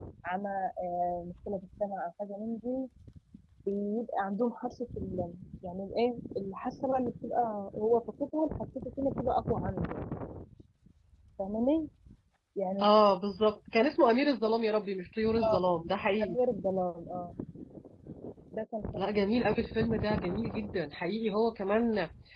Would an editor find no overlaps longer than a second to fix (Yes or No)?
Yes